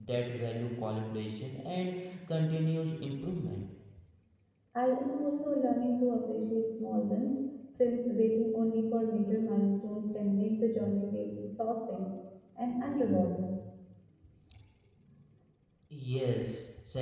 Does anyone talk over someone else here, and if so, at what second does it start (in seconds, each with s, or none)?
none